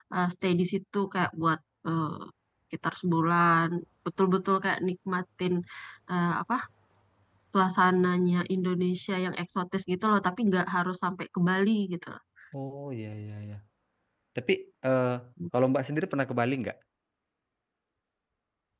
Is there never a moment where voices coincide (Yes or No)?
Yes